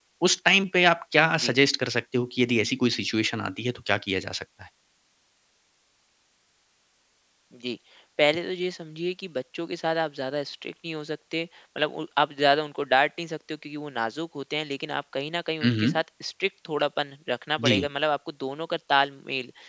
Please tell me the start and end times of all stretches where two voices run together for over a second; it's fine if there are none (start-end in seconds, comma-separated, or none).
none